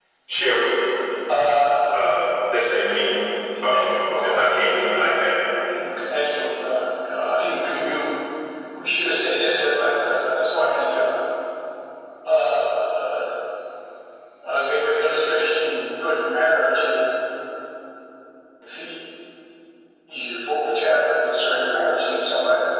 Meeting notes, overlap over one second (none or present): present